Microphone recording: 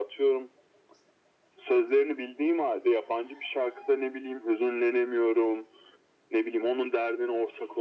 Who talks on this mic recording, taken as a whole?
echo only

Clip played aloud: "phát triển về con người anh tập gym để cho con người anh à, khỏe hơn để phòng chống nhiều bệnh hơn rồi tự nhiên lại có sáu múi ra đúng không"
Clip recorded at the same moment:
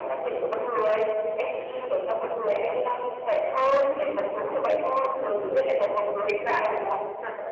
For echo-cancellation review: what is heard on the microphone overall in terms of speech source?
echo only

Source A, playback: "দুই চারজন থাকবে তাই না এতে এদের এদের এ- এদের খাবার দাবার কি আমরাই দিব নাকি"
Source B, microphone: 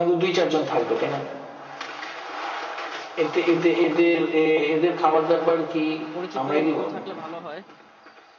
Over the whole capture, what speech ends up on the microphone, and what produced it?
both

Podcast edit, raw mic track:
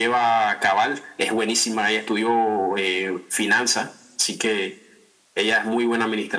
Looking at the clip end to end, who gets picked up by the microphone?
echo only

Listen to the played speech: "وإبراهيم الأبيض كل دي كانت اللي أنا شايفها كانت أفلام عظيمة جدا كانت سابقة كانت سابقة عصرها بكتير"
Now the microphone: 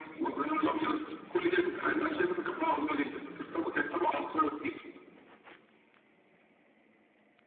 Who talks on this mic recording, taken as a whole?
echo only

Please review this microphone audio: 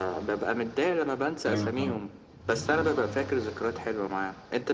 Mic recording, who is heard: both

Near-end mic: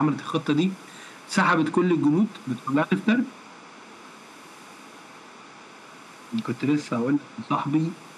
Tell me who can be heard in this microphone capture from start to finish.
echo only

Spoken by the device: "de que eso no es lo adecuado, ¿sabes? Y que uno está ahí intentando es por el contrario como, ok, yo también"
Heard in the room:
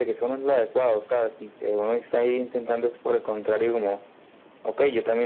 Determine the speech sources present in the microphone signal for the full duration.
echo only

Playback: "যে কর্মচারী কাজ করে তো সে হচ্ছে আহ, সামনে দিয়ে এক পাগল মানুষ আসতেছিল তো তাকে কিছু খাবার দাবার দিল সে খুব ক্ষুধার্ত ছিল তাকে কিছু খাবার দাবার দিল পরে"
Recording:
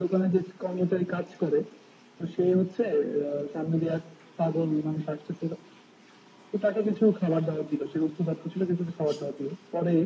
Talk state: echo only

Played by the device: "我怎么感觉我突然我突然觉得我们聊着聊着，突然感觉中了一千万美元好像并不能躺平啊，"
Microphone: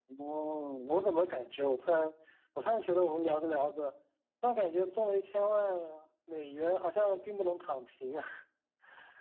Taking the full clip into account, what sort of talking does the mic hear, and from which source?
echo only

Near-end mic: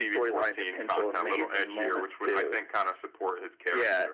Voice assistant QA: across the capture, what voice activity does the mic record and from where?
echo only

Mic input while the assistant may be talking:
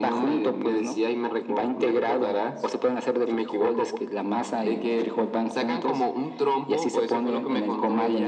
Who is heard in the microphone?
echo only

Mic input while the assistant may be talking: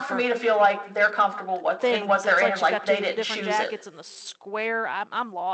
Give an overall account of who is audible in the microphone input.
both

